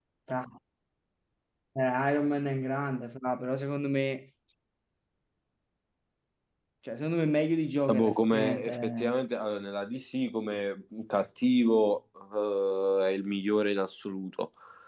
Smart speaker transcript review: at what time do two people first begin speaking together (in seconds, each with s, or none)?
7.9 s